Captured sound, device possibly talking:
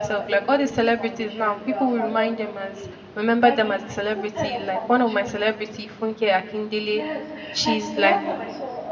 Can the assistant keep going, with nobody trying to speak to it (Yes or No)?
No